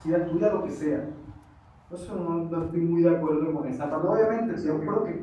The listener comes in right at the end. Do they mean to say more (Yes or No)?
No